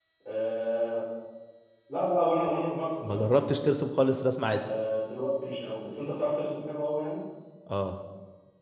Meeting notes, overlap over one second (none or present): none